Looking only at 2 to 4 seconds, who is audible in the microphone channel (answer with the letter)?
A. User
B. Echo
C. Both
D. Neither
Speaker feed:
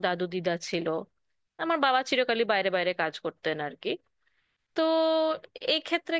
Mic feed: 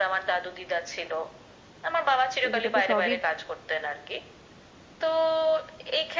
C